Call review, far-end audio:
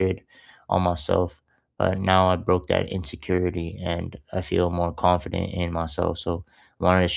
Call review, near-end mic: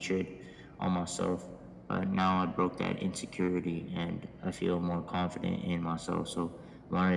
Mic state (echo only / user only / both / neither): echo only